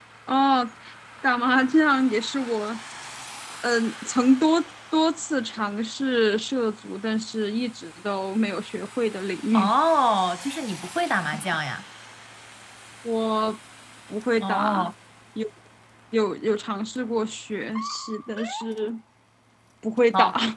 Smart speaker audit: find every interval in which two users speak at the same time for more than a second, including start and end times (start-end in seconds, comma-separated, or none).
none